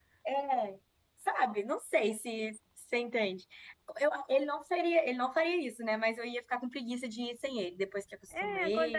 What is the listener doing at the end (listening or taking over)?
taking over